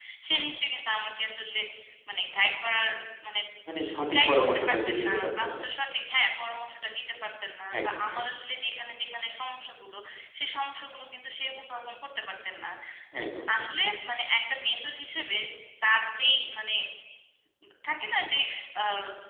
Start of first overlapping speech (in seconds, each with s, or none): 4.2 s